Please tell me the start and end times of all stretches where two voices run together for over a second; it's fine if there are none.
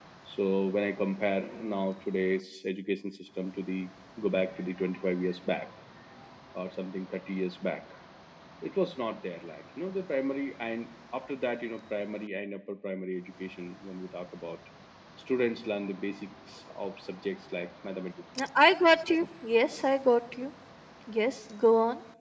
none

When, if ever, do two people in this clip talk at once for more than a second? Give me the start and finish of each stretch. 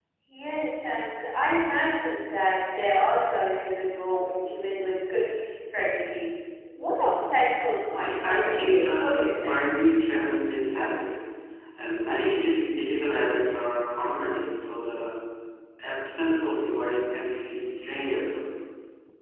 7.9-9.7

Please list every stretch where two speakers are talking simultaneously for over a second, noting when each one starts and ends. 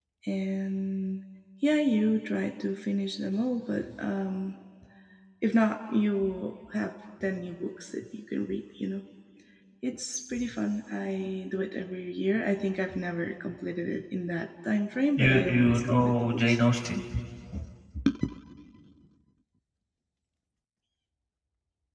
15.2-16.6

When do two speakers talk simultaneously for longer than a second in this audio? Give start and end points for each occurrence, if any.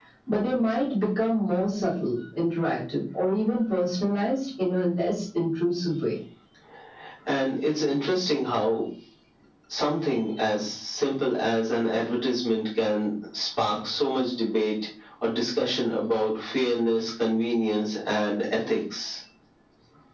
none

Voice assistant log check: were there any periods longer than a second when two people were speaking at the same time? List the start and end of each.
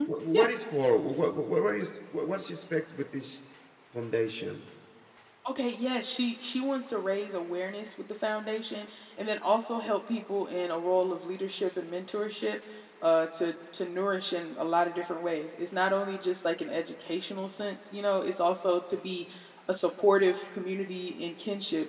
none

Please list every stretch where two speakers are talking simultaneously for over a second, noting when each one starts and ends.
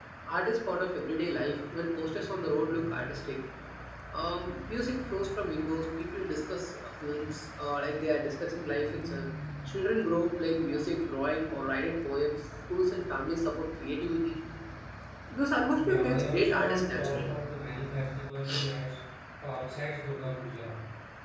15.8-17.3

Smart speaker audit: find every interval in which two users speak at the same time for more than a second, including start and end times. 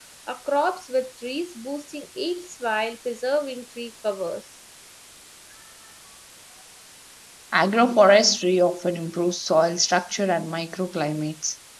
none

